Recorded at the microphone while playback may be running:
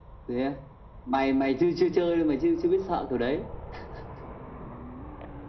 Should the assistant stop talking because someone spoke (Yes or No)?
No